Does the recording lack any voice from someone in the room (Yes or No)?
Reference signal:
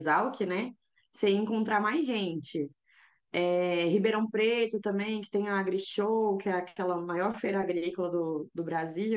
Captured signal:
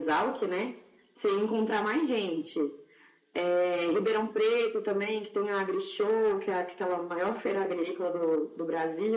Yes